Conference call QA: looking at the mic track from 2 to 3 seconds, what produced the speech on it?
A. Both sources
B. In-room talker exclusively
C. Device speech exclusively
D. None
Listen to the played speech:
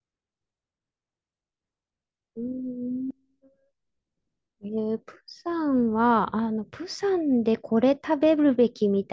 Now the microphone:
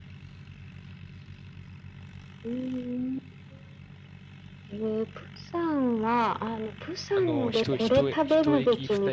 C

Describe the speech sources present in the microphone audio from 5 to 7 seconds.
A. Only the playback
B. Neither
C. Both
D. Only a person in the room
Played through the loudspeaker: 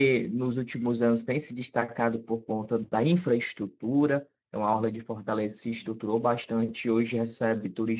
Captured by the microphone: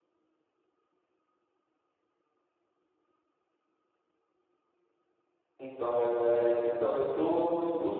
D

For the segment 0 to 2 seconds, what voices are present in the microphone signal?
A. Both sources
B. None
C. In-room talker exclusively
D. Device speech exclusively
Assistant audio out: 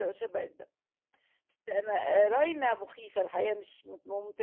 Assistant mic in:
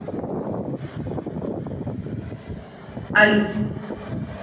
B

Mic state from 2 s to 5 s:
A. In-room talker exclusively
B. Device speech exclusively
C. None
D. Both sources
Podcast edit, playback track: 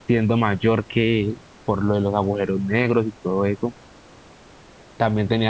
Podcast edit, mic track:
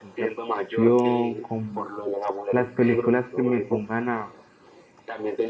D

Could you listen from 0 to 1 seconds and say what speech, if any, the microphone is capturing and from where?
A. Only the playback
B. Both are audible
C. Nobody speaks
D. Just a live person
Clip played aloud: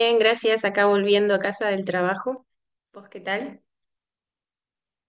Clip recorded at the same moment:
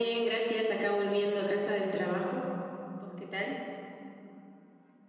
A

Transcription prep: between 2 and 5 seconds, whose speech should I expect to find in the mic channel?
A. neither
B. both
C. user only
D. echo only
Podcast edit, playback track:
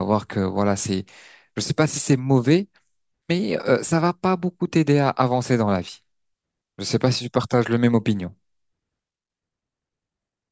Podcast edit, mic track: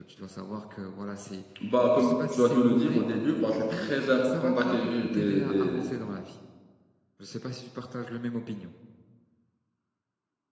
B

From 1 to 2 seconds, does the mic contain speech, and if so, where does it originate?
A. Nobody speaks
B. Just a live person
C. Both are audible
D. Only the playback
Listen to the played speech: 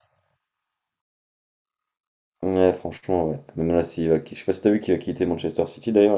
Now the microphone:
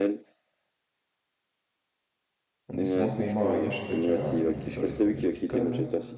A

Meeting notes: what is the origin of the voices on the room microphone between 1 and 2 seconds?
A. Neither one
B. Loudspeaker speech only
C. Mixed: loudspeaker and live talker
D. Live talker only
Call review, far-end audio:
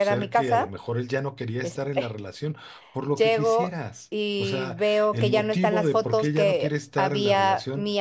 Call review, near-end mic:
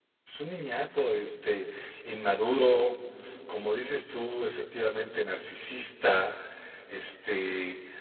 D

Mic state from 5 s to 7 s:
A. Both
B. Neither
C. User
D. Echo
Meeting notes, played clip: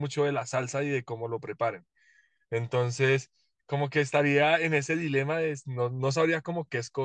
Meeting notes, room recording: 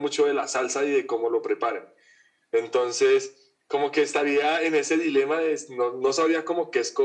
D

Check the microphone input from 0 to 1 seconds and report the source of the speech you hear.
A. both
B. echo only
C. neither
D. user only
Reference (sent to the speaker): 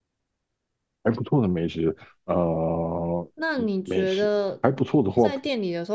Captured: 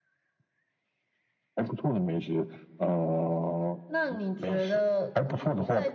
C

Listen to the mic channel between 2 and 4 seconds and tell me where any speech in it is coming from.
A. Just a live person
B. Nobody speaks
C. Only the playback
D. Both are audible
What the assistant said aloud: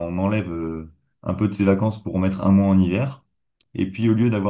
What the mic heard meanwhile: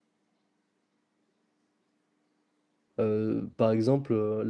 A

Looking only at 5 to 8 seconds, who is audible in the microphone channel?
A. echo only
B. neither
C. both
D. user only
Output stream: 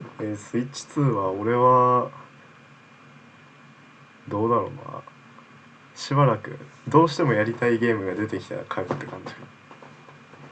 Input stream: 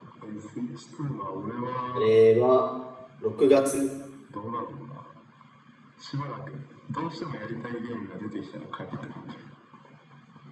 A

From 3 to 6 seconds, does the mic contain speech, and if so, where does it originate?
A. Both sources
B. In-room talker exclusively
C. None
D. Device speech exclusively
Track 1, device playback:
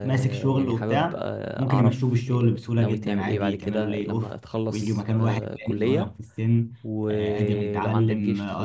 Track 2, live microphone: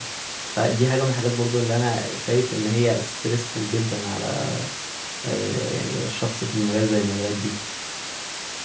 B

